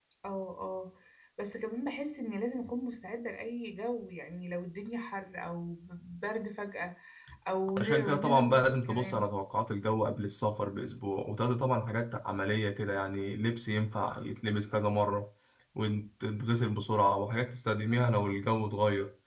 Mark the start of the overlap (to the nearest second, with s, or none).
8 s